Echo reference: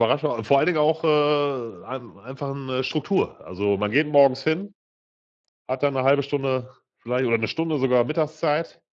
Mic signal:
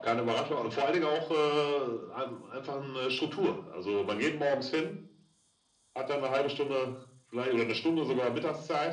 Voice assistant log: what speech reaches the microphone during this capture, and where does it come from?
echo only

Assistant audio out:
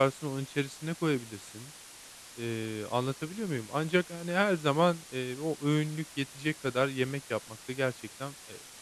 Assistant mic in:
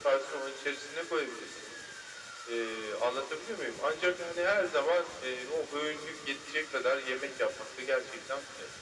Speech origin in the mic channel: echo only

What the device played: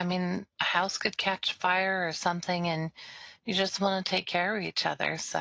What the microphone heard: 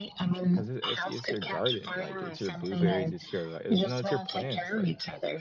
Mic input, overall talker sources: both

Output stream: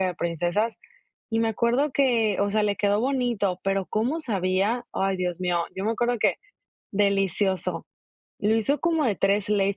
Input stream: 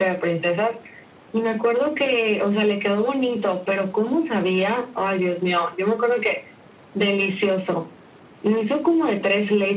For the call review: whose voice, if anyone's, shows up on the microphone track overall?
echo only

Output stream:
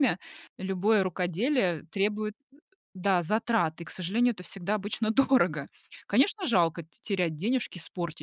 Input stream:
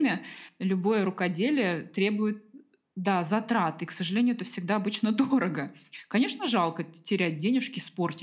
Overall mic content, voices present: echo only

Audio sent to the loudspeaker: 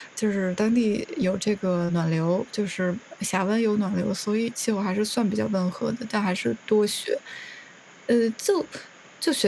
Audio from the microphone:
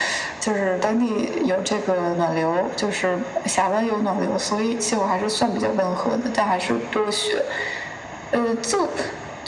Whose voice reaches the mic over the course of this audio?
echo only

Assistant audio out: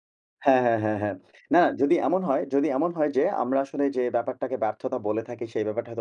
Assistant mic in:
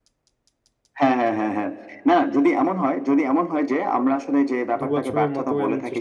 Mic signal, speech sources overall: both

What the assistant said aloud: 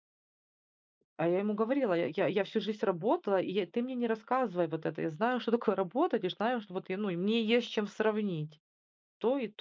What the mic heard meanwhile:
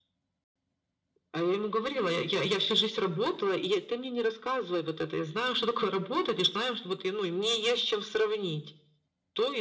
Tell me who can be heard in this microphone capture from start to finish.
echo only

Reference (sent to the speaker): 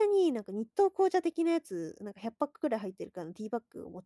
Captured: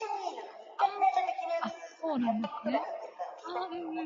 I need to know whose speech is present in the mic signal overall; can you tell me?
both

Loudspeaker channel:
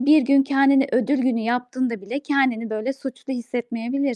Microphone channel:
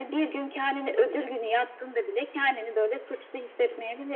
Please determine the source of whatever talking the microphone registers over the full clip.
both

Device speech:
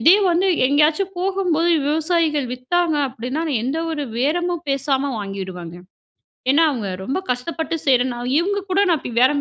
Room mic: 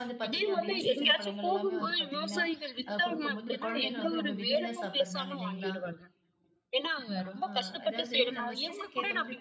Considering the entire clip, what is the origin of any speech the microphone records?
both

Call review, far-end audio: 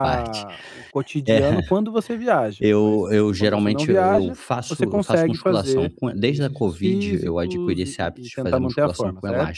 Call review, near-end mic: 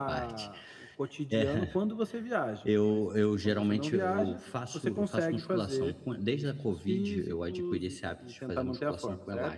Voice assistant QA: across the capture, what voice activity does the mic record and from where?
echo only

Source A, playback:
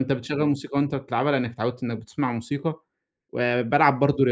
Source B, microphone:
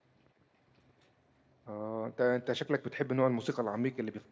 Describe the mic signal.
user only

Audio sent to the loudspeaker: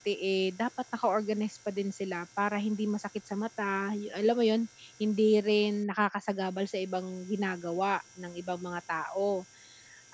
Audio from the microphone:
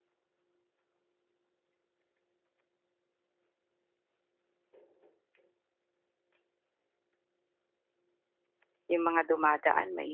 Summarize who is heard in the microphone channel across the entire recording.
user only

